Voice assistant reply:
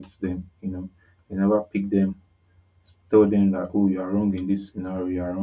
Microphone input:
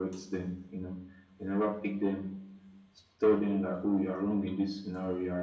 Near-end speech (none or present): none